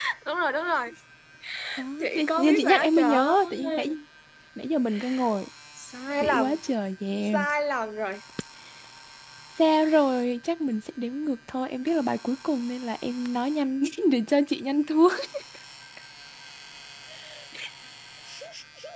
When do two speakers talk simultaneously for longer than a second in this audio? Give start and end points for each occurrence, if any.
2.0-3.9

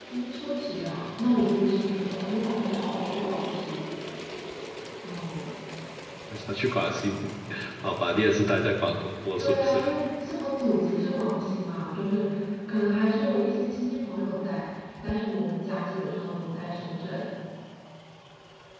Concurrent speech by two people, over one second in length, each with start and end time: none

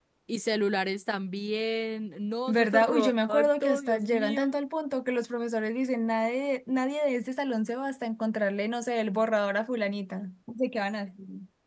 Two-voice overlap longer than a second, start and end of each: 2.5-4.5

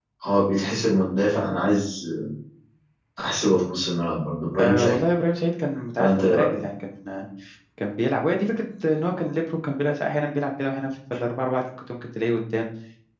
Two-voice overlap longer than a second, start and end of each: none

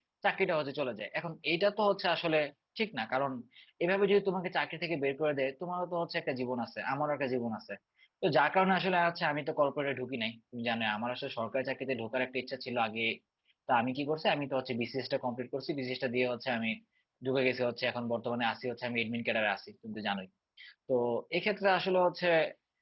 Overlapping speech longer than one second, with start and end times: none

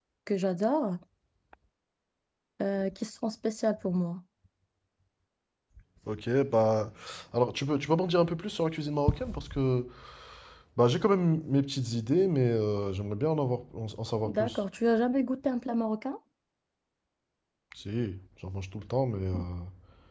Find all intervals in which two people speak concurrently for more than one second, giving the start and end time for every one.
none

